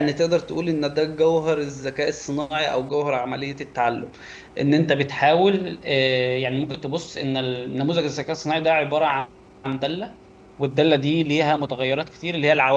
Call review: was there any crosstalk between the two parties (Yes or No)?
No